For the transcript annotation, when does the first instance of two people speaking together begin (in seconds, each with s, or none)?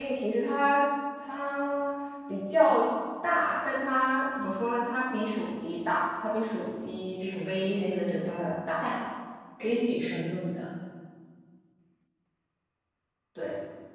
7.1 s